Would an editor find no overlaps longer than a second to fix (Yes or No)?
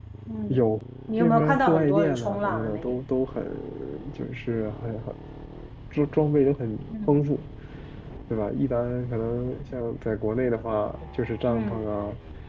No